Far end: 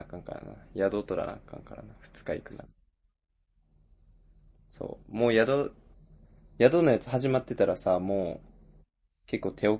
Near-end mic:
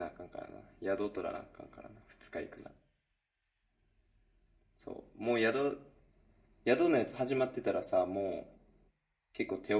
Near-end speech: none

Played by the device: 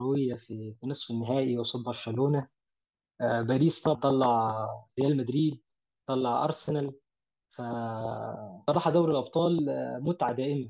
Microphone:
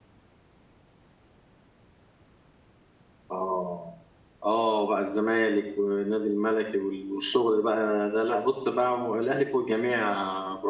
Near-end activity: present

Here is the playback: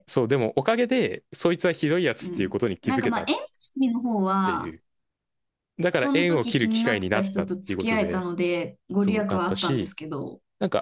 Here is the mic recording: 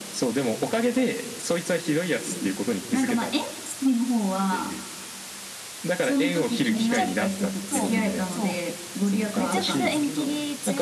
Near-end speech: present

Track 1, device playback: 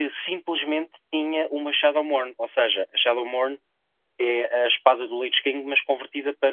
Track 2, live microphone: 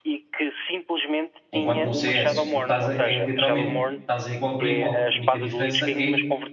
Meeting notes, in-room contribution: present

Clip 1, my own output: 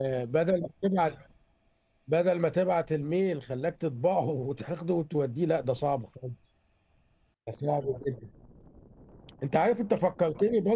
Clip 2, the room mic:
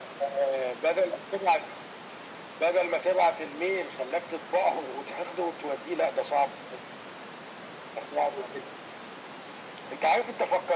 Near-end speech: none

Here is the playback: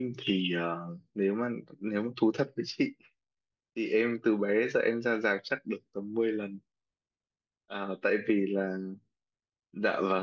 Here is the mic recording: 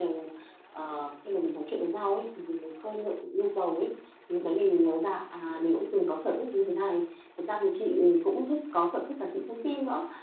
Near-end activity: present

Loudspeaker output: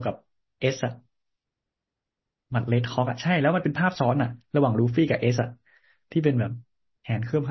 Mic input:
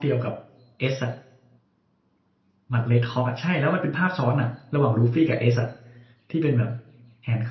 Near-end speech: none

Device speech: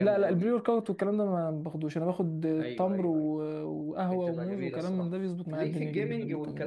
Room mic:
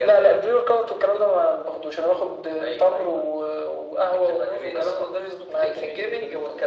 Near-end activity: none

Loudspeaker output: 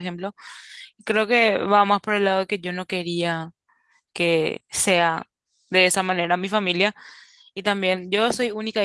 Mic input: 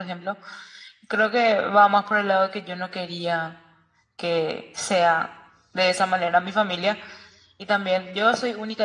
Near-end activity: none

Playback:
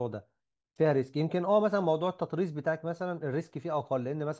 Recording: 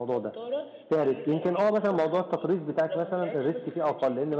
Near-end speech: present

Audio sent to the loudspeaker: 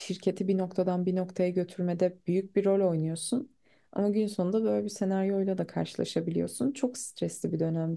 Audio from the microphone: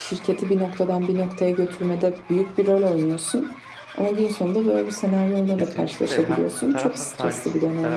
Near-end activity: present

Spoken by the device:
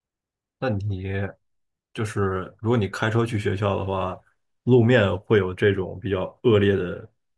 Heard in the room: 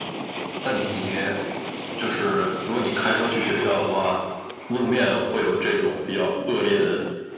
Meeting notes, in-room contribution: none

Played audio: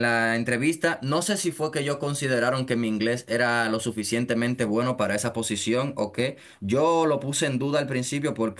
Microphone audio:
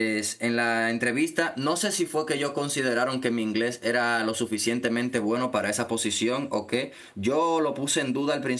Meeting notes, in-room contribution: none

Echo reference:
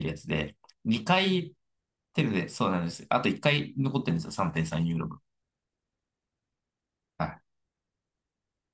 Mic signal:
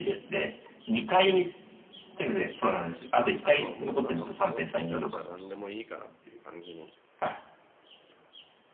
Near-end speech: present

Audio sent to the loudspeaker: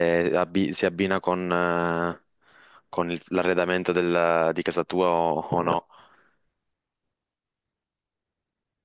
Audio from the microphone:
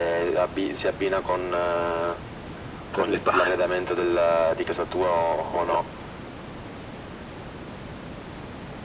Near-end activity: present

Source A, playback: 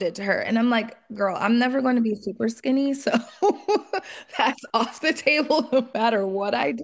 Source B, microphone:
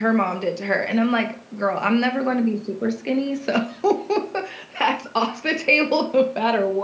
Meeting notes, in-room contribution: none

